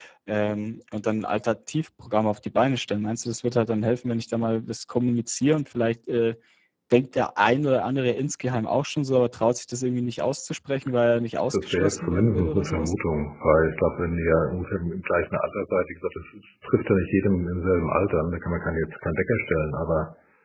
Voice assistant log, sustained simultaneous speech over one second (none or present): present